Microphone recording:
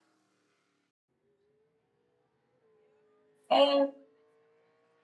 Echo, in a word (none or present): none